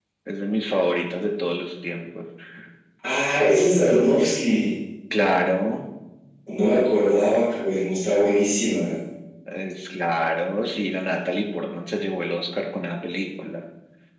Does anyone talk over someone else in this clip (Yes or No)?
No